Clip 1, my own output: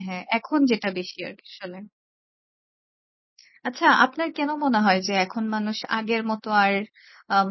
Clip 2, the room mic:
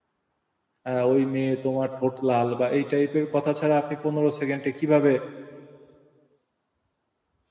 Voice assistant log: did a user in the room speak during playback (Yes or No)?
Yes